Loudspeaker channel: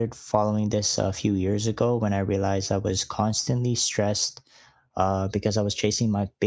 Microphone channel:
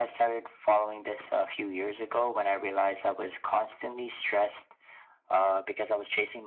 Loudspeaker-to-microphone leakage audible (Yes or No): Yes